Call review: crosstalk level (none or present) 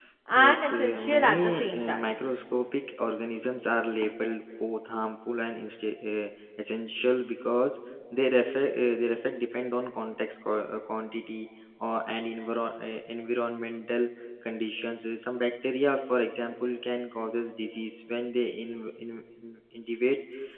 present